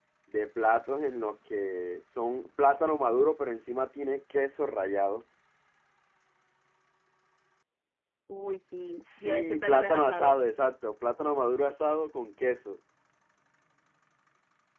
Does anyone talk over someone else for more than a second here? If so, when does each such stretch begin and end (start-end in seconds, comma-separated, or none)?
9.0-10.4